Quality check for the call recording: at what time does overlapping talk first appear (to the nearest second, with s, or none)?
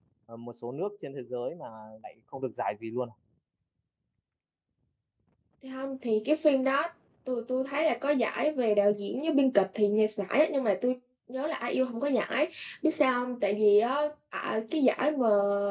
none